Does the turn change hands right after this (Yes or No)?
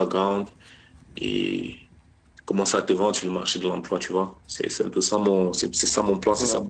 Yes